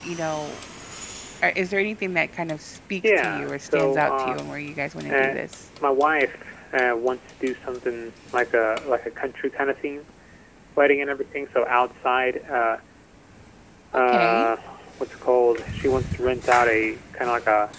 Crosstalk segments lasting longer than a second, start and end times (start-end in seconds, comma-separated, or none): 3.0-4.4